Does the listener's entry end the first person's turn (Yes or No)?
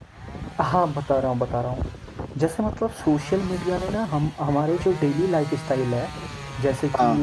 No